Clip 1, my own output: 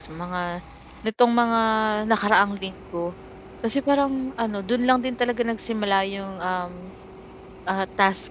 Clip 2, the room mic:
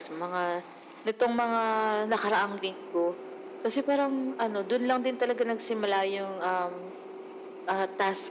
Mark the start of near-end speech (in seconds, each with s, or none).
none